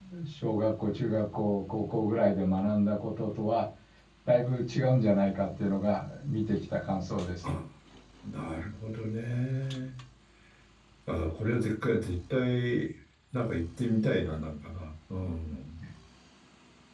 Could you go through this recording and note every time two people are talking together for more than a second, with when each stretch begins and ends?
none

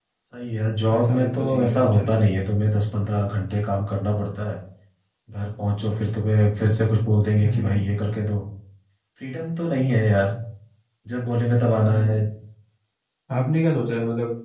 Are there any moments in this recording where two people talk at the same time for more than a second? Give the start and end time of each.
0.9-2.2

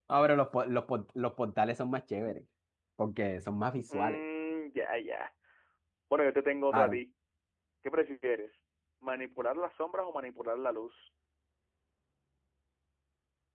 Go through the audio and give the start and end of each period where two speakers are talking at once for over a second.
none

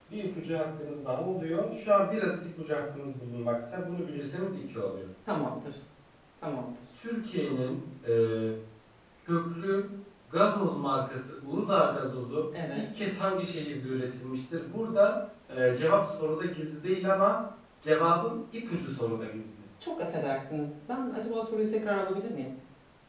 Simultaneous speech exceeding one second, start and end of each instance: none

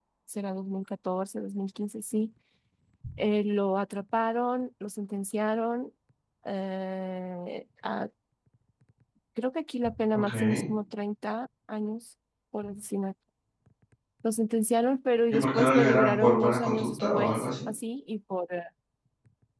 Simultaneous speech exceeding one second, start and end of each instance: 15.3-17.5

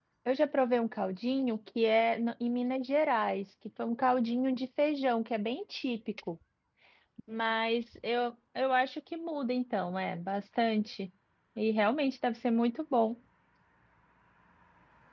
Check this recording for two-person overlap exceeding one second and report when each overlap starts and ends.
none

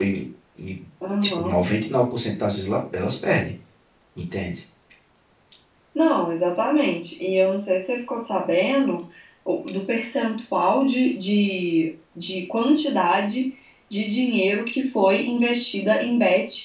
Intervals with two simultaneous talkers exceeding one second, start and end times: none

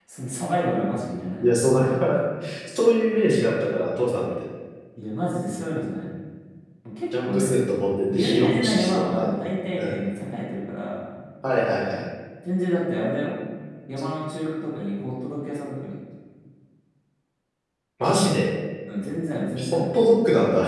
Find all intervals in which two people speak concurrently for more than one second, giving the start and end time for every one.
8.1-9.4

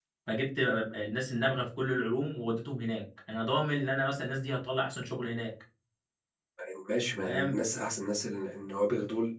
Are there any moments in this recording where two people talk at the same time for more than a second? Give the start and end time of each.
none

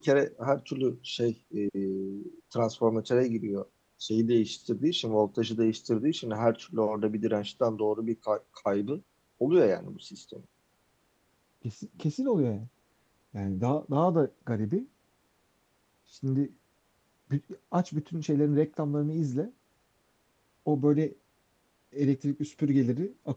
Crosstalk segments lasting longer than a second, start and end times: none

